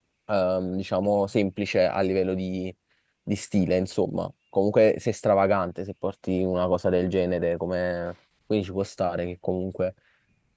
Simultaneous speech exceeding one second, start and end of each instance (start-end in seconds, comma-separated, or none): none